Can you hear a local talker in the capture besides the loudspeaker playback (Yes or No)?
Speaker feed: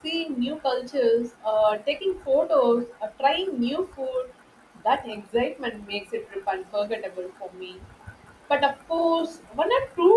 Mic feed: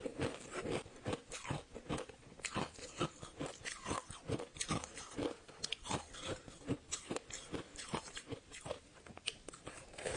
No